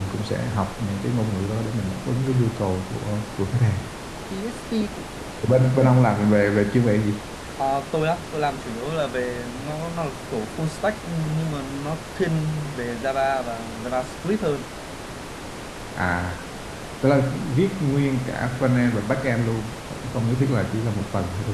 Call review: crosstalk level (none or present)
none